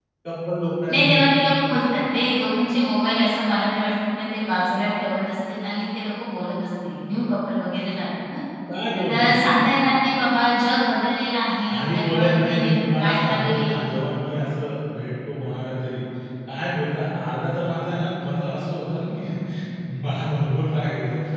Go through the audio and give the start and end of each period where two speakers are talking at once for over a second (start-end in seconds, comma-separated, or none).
11.7-13.8